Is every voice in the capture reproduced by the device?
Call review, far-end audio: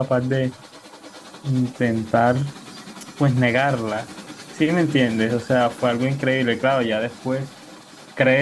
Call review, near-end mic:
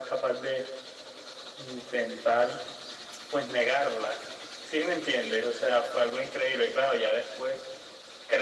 Yes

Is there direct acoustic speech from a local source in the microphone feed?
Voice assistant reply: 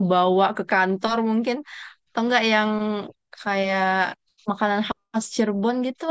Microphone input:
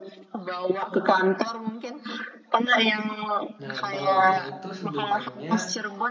Yes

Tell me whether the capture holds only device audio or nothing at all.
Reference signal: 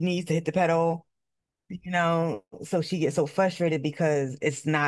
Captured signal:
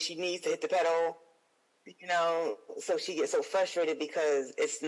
Yes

